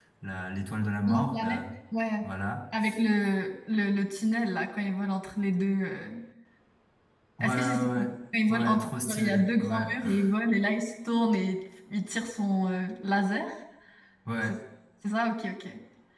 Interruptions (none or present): present